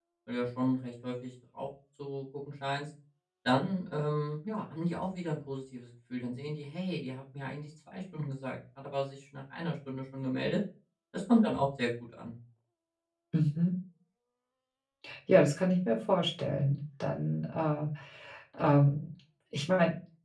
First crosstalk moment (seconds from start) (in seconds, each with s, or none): none